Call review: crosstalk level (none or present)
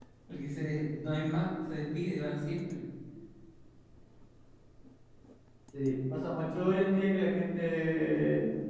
none